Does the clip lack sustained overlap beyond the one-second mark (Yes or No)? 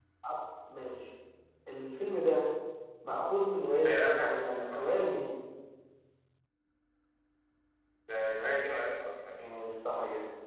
No